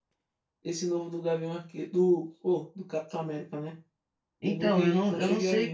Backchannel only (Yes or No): No